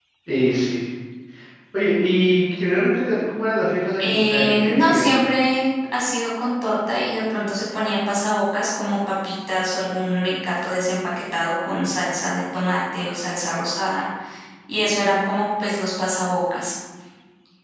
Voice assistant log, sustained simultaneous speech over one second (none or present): present